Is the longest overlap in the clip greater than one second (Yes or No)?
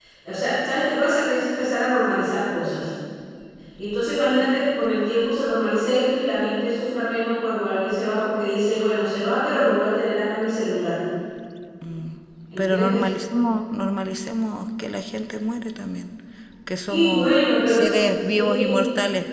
Yes